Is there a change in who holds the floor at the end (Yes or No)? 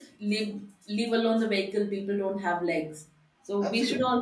No